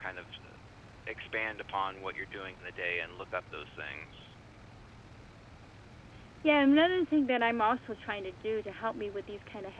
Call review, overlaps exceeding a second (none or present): none